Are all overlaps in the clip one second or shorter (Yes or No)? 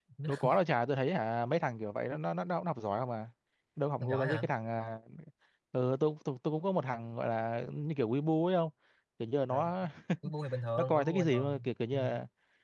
No